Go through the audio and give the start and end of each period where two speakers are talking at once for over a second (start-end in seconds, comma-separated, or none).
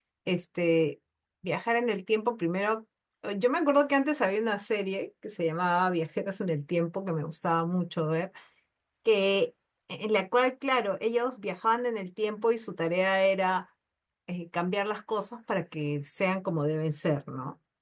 none